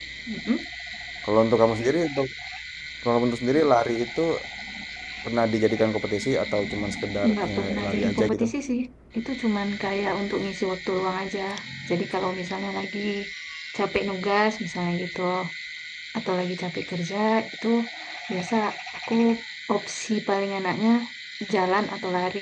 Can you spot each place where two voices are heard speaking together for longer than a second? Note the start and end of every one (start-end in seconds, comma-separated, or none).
7.3-8.5